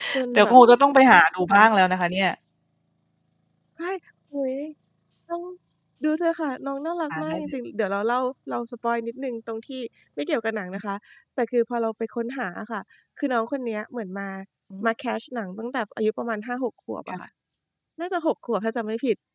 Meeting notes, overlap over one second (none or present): none